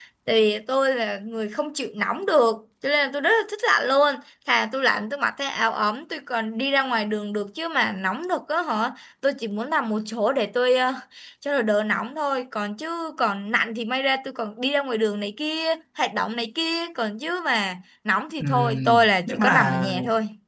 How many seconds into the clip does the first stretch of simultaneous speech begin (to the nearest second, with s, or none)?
18 s